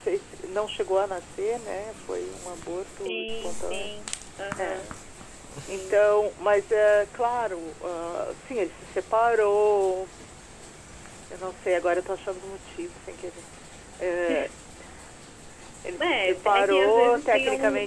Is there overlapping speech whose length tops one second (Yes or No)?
Yes